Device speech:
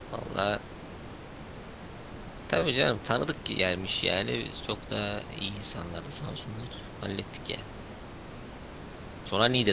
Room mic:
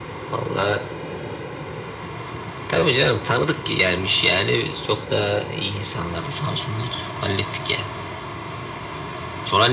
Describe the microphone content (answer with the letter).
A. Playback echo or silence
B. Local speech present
A